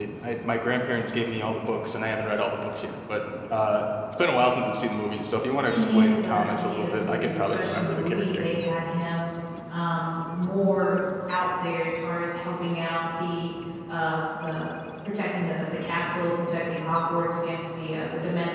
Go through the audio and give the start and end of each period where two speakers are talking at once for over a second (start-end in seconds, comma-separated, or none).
5.7-8.4